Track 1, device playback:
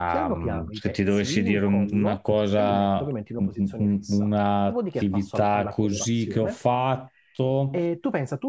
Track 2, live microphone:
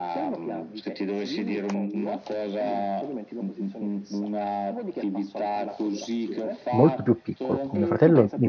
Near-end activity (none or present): present